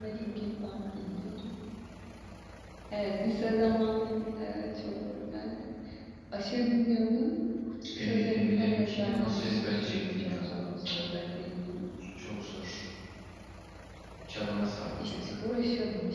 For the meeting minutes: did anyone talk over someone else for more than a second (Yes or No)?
Yes